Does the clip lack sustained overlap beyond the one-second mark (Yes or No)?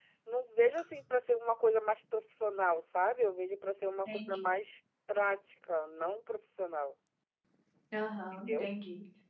Yes